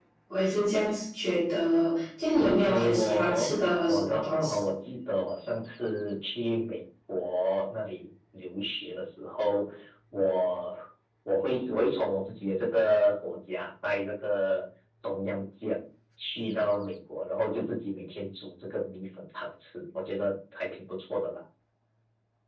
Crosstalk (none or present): present